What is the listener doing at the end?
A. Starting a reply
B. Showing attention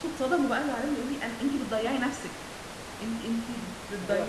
A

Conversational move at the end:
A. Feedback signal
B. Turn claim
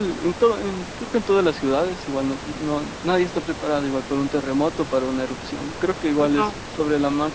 A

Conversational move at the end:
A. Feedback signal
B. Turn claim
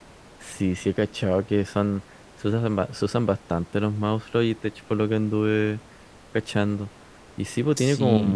A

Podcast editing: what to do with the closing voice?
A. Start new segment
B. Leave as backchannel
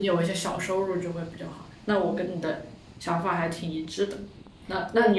B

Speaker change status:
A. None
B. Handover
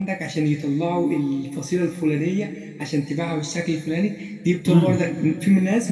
A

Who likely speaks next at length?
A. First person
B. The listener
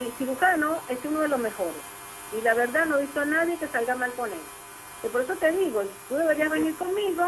A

